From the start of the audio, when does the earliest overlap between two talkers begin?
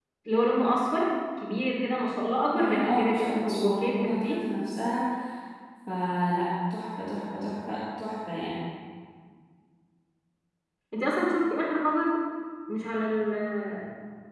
2.5 s

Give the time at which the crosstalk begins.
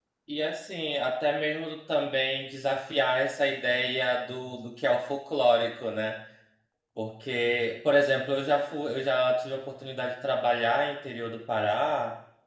none

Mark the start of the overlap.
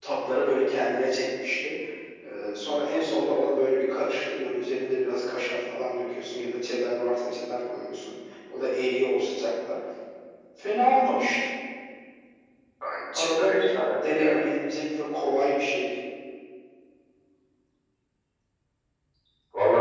13.1 s

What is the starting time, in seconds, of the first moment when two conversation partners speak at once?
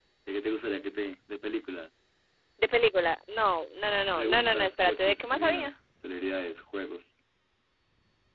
4.2 s

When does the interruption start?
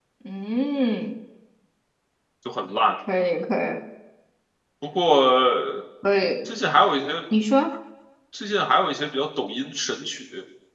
none

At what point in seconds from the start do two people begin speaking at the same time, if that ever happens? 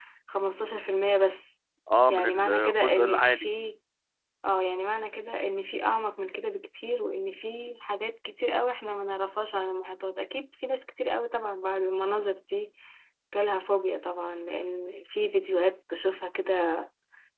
2.1 s

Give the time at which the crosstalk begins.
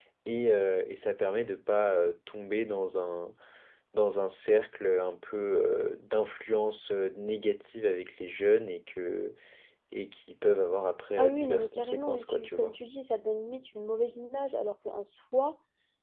11.2 s

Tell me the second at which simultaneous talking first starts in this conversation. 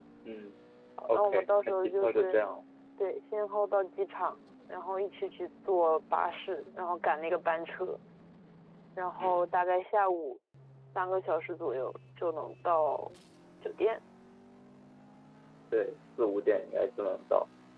1.1 s

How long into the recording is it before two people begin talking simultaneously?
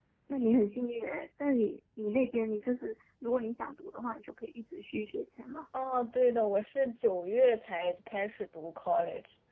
none

